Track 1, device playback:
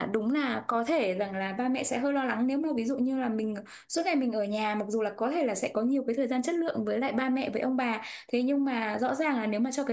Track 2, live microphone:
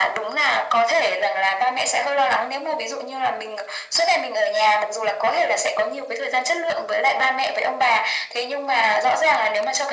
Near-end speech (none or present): none